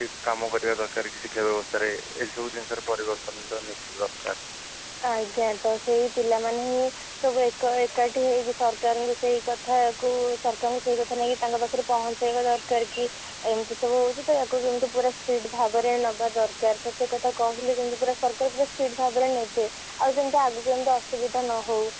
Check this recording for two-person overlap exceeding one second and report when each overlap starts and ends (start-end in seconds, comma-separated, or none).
none